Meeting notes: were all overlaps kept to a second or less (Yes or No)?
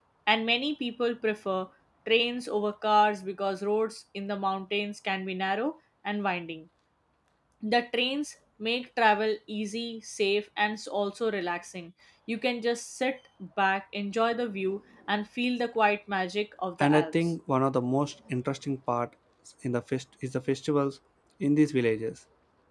Yes